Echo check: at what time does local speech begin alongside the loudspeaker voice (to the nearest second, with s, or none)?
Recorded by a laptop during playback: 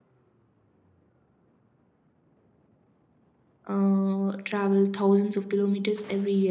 4 s